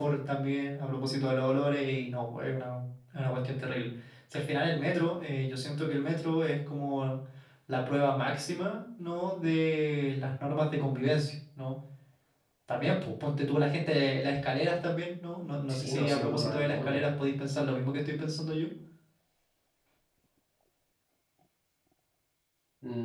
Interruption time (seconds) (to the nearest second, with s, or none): 16 s